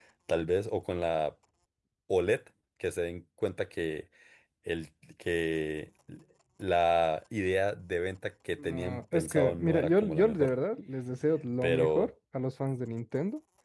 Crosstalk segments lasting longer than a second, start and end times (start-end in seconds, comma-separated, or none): 8.5-10.5